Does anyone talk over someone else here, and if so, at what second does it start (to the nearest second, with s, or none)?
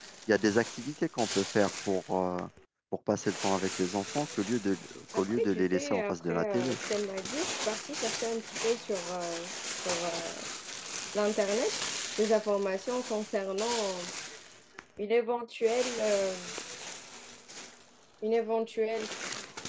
5 s